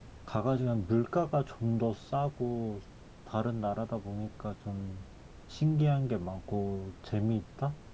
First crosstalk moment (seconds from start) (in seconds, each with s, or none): none